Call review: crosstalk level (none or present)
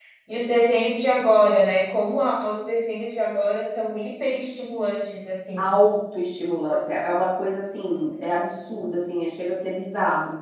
none